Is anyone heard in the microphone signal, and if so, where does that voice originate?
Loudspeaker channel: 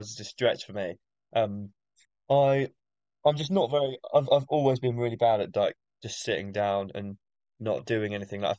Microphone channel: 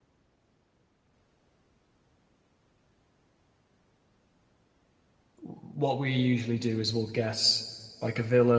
user only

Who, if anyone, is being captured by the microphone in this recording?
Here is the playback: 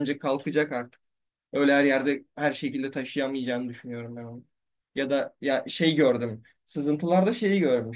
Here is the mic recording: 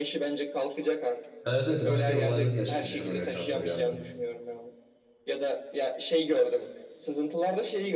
both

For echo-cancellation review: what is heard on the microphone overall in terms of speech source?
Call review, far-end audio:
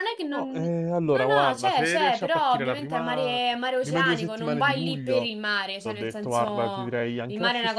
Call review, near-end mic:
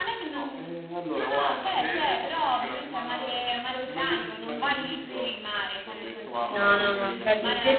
both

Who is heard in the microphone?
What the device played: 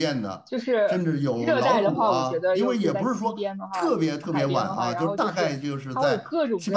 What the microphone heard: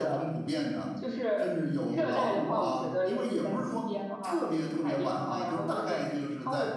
echo only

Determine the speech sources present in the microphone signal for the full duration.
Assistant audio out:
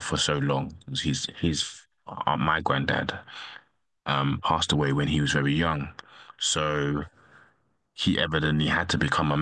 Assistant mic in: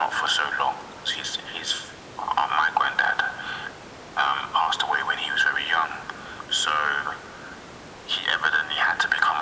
echo only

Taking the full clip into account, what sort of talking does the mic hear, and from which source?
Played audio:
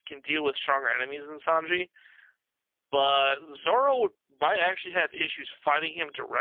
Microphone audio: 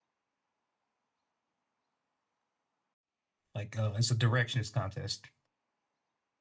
user only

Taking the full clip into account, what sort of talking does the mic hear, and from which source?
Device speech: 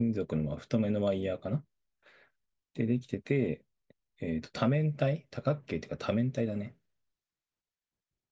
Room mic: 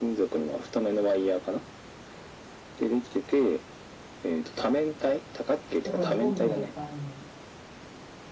both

